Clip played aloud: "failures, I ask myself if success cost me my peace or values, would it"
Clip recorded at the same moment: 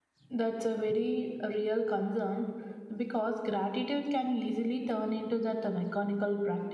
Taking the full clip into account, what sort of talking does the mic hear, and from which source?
user only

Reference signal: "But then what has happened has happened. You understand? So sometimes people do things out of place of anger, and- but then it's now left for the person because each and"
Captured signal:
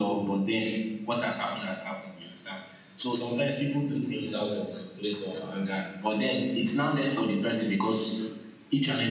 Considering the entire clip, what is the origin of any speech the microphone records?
echo only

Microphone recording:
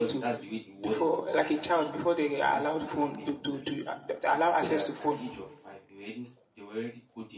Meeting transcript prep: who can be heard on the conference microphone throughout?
both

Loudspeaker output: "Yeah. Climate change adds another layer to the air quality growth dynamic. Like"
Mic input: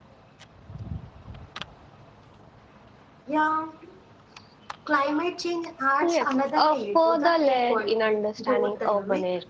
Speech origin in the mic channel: both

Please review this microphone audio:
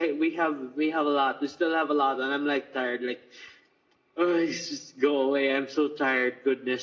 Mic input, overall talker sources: echo only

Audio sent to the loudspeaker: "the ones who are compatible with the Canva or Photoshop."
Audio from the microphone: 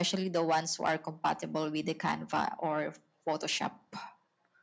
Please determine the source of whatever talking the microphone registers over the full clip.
echo only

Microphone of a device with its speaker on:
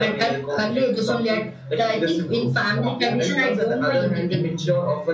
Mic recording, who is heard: echo only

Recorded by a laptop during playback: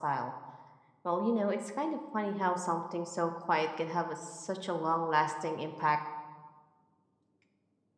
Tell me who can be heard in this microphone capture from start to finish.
echo only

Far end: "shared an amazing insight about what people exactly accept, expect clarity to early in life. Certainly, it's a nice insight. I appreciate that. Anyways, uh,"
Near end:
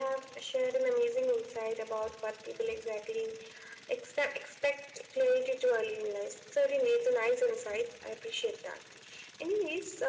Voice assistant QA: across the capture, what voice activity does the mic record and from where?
echo only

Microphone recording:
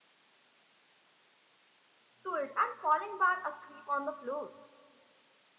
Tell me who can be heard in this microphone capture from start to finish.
user only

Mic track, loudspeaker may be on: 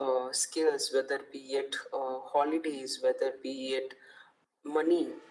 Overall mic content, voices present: echo only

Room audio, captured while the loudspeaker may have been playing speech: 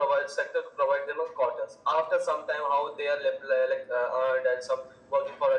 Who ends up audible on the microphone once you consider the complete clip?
echo only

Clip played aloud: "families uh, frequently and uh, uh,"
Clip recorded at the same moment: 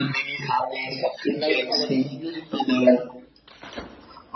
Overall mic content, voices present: both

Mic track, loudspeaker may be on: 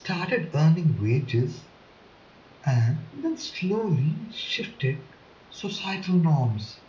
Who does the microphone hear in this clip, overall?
echo only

